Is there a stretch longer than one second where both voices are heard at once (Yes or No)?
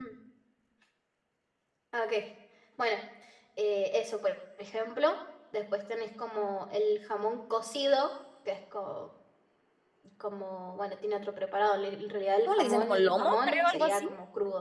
Yes